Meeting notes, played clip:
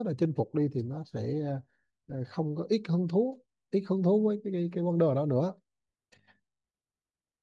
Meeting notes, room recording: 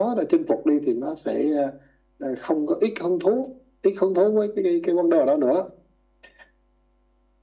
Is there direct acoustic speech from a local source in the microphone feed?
No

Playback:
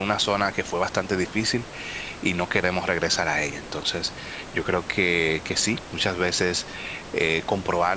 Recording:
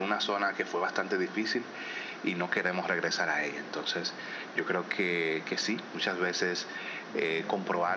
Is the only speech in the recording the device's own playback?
No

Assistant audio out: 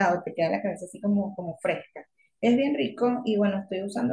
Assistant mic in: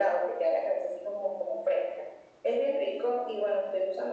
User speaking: No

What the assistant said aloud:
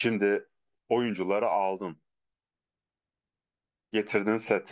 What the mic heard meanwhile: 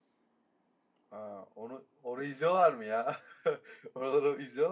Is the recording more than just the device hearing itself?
Yes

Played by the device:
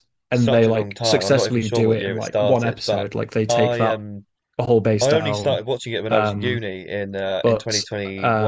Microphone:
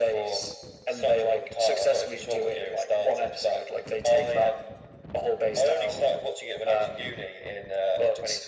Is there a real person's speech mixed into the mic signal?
No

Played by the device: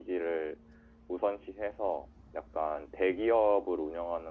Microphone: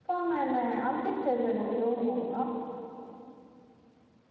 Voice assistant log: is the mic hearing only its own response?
No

